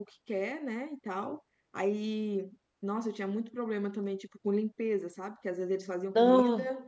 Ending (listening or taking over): listening